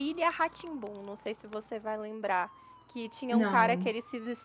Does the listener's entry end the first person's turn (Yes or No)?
No